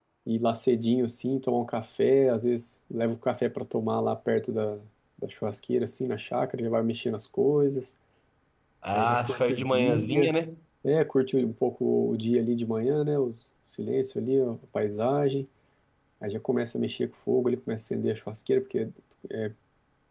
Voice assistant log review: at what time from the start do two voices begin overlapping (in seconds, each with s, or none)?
8.9 s